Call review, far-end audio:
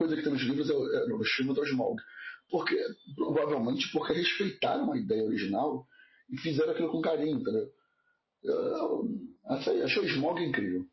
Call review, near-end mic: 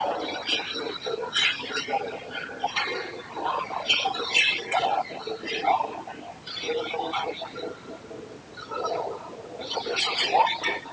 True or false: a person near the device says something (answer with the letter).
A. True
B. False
B